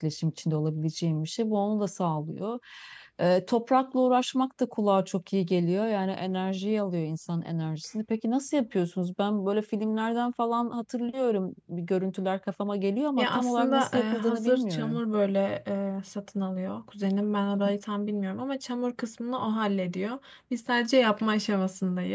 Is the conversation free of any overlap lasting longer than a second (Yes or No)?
No